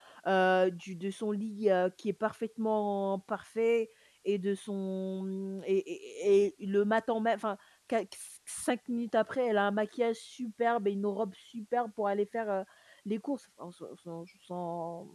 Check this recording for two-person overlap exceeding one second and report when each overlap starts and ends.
none

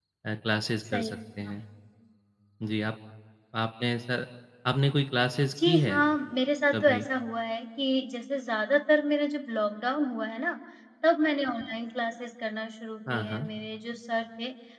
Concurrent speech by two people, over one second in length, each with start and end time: none

